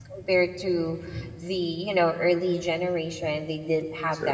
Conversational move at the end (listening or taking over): listening